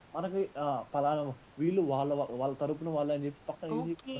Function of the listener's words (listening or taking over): taking over